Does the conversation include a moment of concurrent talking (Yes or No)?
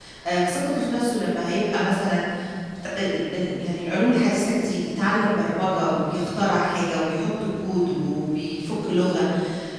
No